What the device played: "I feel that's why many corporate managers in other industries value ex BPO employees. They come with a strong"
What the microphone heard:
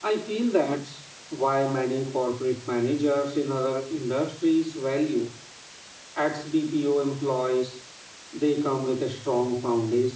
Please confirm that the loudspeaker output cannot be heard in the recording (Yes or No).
No